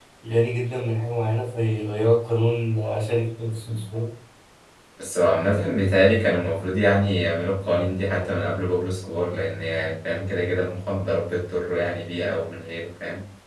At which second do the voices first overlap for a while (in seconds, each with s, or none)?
none